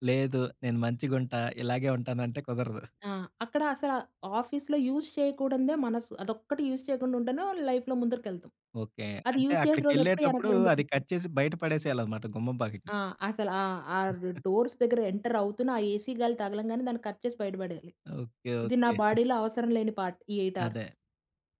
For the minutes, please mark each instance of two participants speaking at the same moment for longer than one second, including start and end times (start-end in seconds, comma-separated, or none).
9.3-11.0